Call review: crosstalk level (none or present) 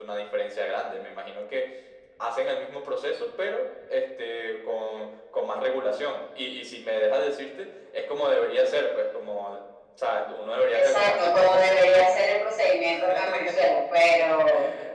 present